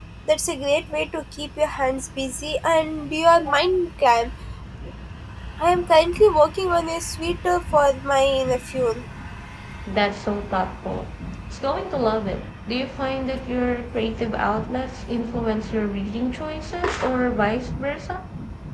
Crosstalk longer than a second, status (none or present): none